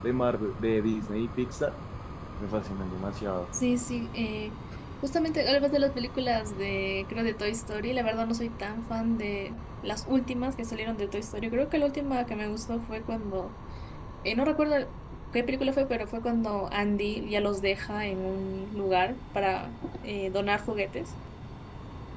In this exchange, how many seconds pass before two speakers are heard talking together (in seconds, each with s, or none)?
none